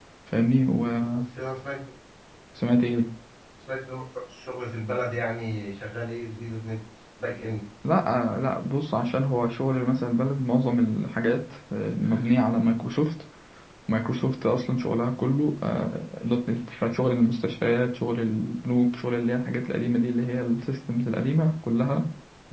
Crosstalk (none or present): none